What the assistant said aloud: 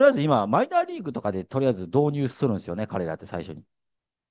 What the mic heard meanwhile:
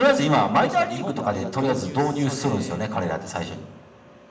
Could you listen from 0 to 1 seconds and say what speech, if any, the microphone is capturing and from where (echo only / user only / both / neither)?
both